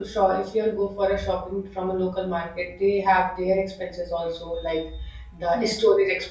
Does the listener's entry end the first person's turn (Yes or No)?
No